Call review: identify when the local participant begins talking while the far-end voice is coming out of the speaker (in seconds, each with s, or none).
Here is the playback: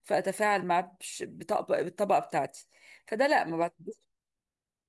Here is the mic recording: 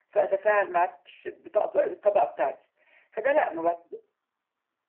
none